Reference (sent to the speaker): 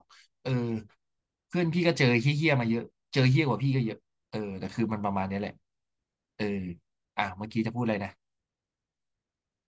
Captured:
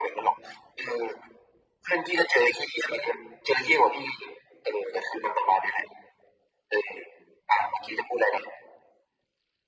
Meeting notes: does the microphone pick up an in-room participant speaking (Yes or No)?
No